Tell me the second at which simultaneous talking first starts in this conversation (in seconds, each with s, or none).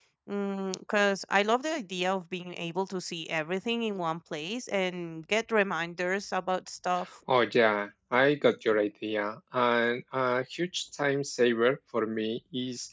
none